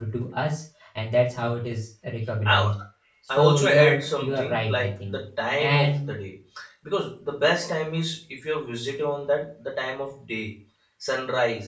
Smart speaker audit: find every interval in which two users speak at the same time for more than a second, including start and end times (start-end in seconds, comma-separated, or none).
3.4-5.2